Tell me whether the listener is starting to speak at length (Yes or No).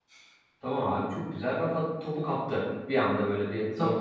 Yes